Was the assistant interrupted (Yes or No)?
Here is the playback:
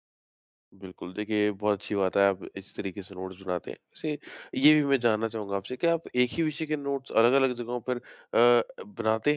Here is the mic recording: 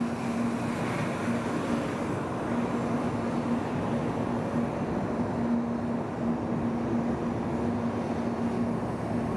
No